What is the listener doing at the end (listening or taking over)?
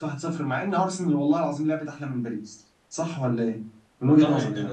taking over